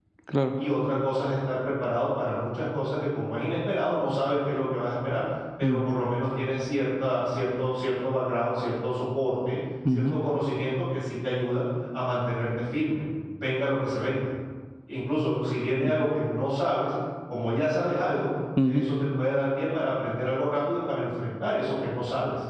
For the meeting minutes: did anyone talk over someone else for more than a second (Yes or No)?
No